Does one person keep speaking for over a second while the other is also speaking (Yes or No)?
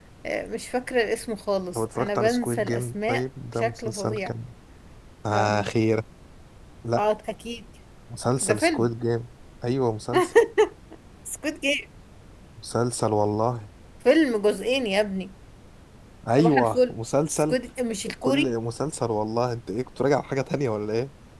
Yes